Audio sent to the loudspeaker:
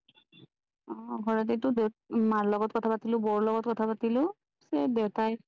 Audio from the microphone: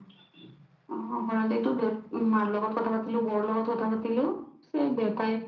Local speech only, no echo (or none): none